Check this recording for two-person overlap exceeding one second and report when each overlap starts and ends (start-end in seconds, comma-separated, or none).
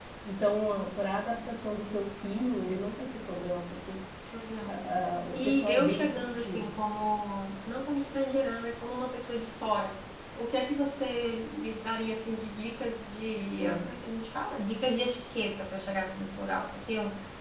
5.3-6.7